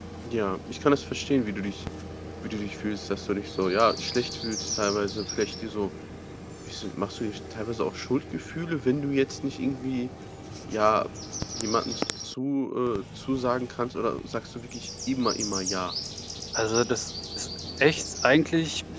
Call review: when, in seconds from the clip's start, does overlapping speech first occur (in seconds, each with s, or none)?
none